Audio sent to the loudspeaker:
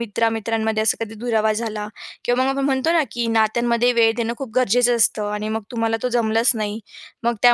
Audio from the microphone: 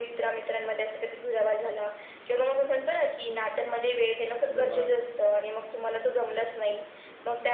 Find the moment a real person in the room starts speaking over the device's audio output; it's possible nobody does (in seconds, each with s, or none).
4.5 s